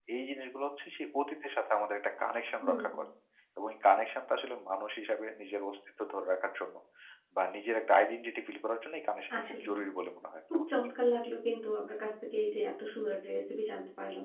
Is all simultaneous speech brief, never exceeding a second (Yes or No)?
Yes